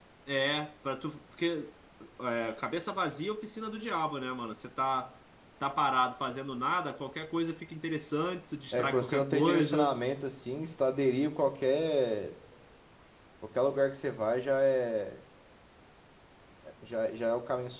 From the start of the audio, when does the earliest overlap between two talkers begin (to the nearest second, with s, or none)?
9 s